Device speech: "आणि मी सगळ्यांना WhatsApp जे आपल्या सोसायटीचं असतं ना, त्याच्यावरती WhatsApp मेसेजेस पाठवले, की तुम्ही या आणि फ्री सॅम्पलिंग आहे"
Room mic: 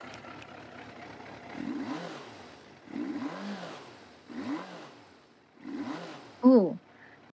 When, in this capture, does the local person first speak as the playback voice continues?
6.5 s

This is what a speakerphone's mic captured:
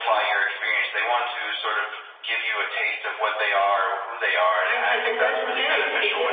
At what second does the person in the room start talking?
4.6 s

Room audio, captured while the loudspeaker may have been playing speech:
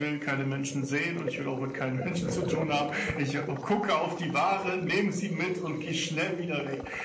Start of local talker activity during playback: none

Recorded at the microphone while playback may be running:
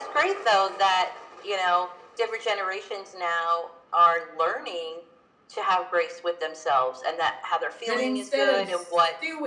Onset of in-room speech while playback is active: 7.8 s

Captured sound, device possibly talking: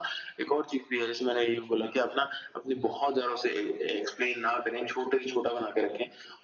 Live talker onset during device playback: none

